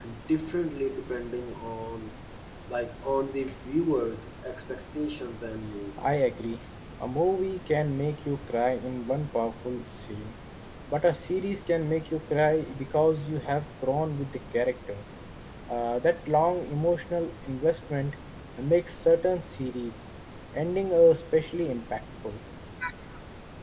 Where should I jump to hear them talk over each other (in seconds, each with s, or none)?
none